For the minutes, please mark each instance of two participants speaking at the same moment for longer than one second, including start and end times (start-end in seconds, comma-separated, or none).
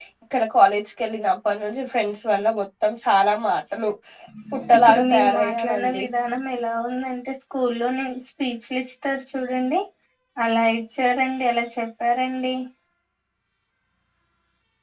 4.8-6.0